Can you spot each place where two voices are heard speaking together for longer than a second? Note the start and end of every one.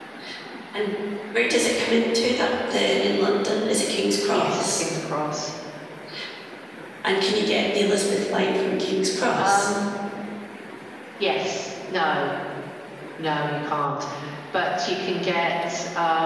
none

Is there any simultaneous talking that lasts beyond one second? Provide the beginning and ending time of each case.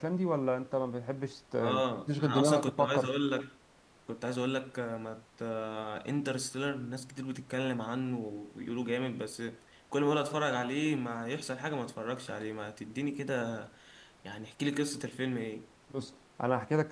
1.6-3.1

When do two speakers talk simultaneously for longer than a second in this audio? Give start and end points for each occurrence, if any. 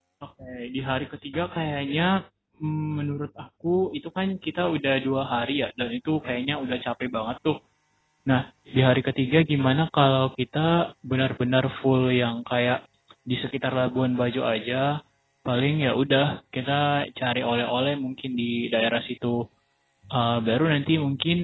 none

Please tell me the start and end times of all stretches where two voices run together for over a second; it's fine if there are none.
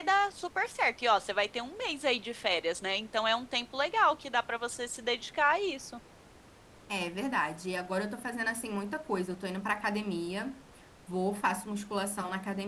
none

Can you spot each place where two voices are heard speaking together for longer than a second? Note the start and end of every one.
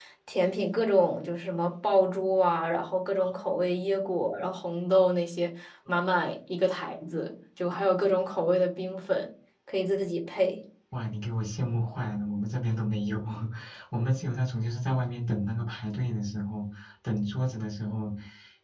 none

